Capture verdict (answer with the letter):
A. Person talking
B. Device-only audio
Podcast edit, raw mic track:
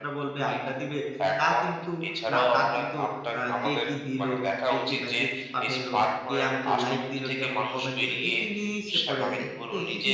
A